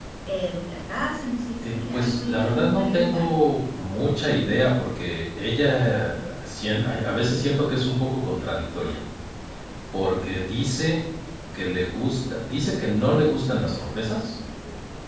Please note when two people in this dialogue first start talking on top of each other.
1.6 s

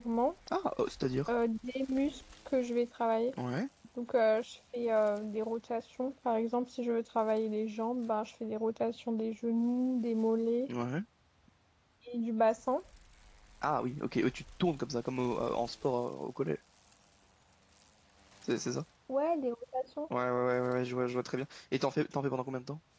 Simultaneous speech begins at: none

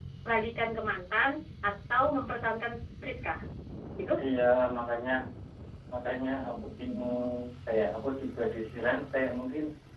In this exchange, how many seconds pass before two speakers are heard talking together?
none

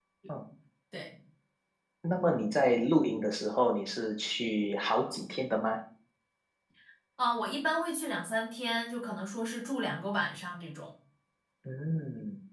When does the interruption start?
none

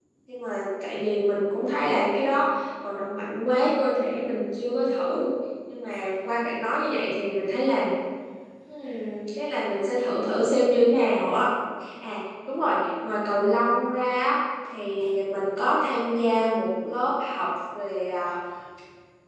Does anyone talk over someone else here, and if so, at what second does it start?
none

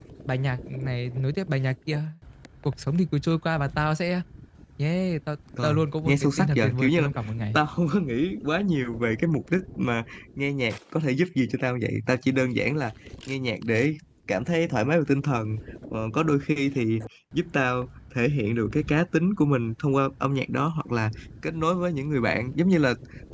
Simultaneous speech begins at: 5.6 s

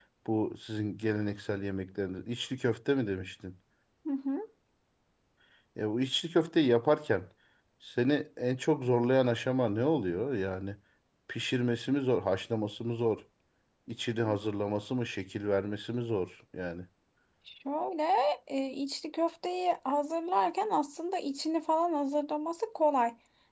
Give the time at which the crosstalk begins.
none

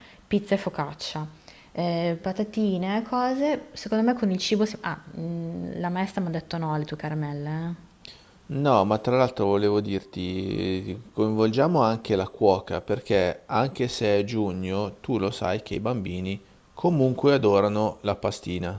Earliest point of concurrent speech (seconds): none

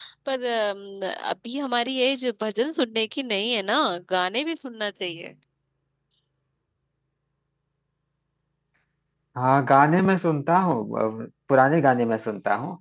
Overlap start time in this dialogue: none

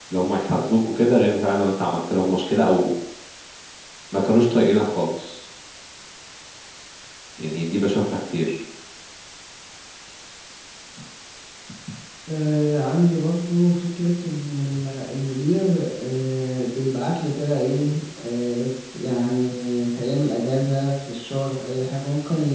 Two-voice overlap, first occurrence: none

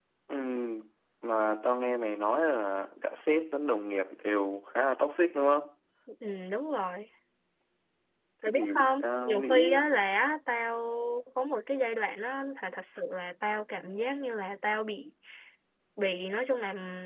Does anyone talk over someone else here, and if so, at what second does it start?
8.4 s

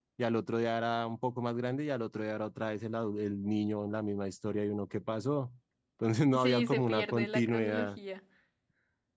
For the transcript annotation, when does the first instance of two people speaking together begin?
6.4 s

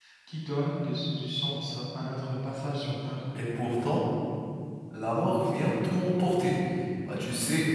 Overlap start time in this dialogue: none

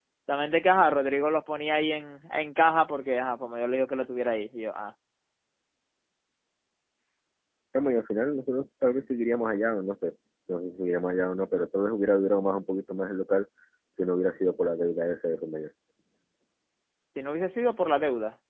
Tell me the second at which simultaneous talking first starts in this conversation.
none

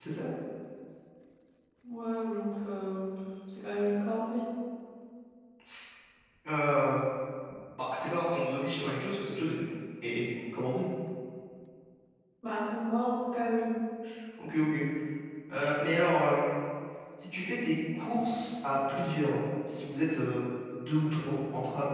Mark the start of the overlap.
none

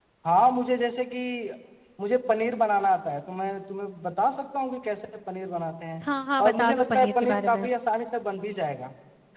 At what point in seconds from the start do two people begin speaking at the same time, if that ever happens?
6.4 s

